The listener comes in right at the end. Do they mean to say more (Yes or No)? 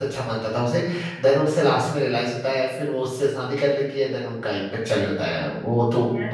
Yes